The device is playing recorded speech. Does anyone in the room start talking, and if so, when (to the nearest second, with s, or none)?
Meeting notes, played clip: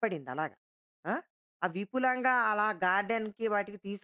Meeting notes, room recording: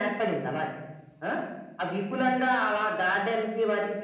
none